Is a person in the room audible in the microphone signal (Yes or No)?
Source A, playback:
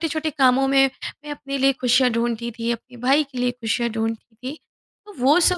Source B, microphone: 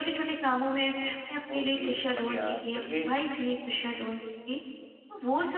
Yes